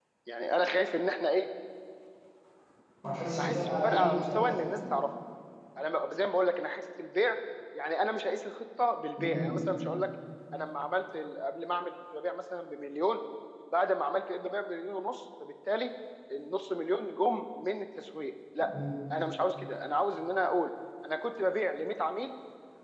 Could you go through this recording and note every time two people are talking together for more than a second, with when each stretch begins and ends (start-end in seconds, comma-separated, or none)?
3.4-4.8